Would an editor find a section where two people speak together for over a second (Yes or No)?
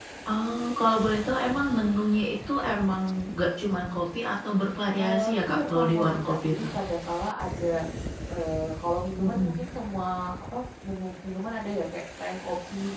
Yes